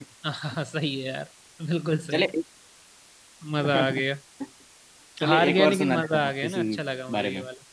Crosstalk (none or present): present